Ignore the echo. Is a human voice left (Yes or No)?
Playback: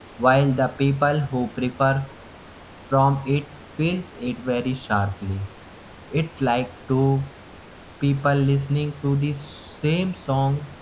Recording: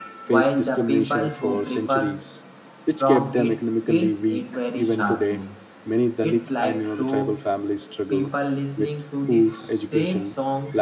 Yes